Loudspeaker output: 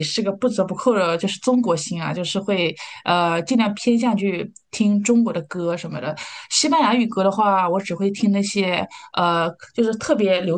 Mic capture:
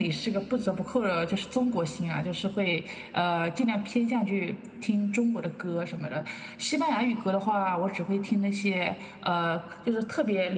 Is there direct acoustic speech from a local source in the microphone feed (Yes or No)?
No